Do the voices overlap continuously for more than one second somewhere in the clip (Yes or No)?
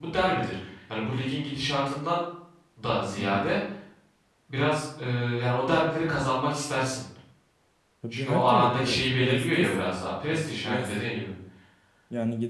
Yes